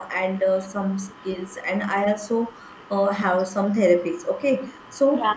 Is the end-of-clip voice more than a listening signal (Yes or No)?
No